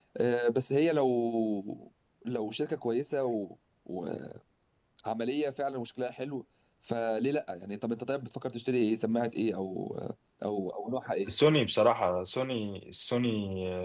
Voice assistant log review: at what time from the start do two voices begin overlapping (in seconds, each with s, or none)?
none